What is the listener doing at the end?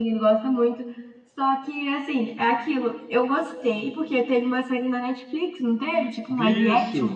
taking over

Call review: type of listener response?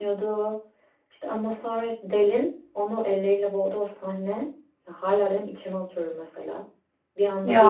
listening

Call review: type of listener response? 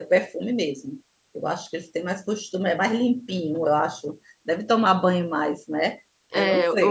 taking over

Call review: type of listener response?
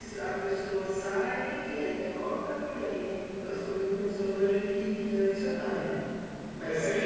listening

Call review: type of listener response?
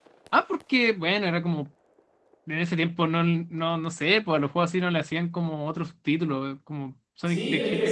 taking over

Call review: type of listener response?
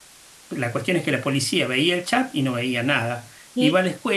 listening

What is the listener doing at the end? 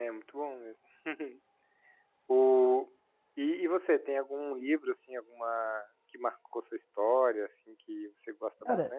taking over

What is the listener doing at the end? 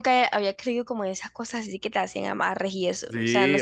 taking over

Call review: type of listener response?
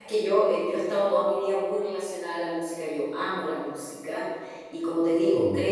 listening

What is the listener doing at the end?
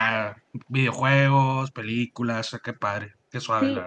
taking over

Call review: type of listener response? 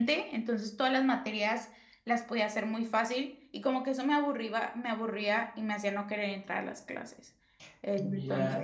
taking over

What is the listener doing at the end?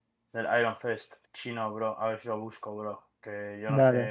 listening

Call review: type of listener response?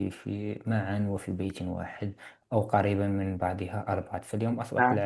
listening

